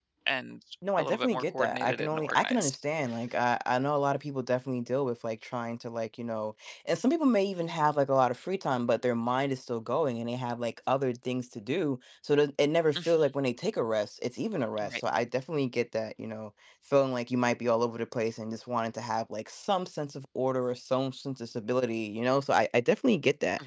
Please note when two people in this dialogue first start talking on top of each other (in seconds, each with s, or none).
1.0 s